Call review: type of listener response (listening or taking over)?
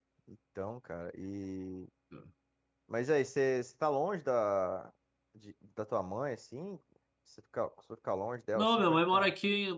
taking over